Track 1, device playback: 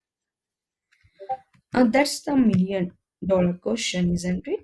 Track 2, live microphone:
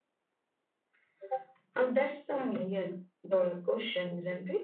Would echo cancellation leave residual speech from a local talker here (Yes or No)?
No